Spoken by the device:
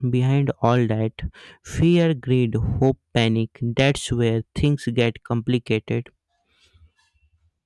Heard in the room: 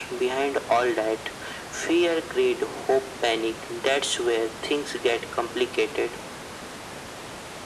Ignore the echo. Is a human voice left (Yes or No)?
No